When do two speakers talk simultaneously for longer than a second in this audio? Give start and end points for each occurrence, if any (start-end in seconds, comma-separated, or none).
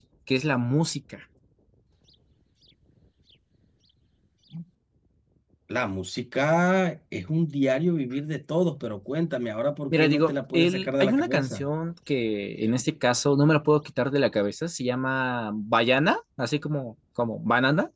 9.9-11.7